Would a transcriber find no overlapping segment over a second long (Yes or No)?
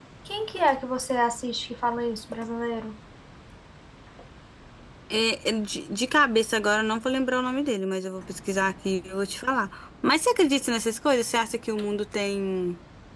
Yes